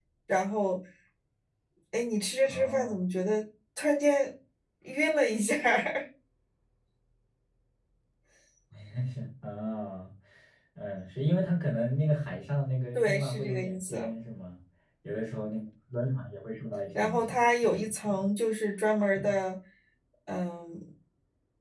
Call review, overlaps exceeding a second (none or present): present